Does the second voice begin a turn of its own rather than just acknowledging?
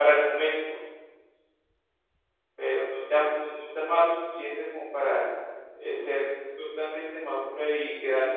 No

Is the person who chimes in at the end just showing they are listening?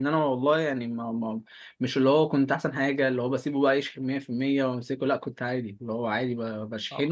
No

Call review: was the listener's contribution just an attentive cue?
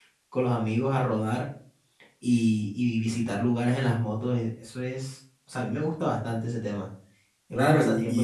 No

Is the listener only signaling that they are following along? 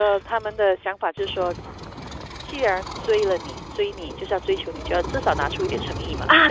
No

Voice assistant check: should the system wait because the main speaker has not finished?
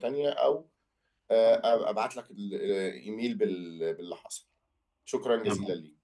No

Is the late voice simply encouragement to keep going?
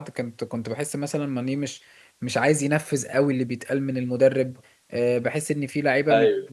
Yes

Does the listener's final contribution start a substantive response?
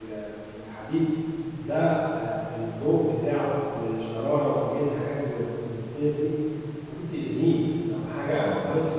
No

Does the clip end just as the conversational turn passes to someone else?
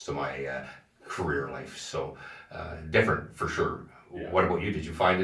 No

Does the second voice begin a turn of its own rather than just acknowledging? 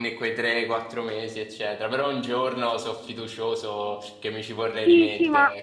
Yes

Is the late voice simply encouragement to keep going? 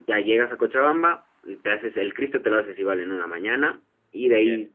Yes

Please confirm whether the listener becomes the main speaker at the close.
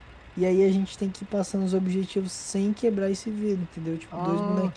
Yes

